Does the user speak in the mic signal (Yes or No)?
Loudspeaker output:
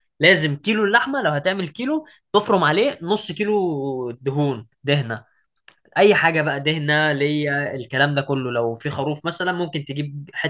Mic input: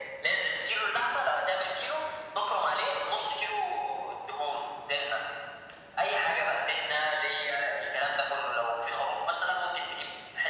No